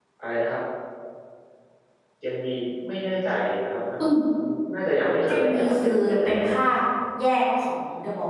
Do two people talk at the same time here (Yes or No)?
Yes